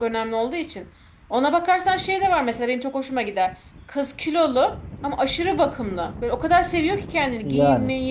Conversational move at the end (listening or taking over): listening